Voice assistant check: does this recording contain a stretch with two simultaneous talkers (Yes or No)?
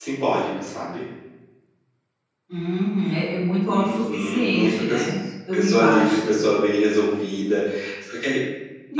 Yes